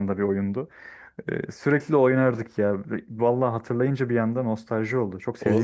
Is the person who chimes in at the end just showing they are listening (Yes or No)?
No